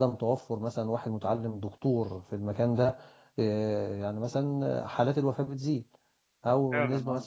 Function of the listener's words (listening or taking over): listening